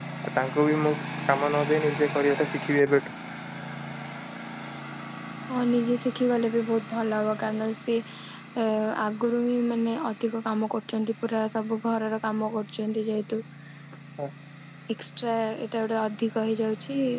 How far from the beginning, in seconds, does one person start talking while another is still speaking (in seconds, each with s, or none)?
none